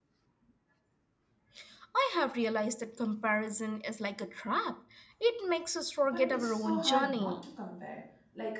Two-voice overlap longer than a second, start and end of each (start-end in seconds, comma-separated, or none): 6.1-7.3